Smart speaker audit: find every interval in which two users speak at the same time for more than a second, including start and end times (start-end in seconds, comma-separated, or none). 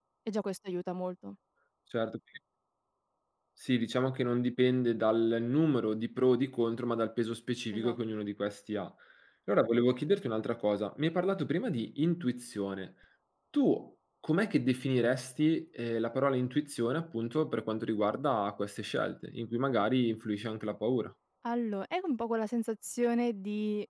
none